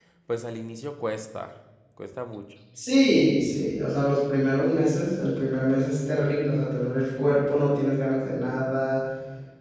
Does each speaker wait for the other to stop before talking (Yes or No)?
Yes